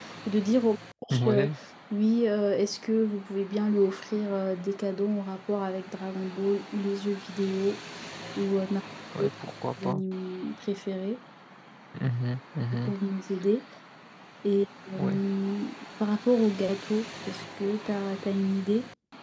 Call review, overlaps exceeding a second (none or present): none